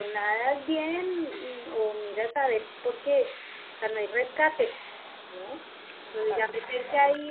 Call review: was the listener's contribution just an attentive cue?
Yes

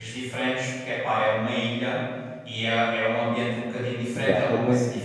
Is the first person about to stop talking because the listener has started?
No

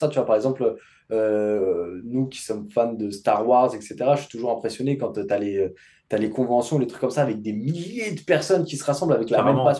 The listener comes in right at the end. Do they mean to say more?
No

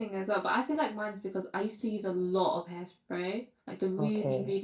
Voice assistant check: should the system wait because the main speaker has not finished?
Yes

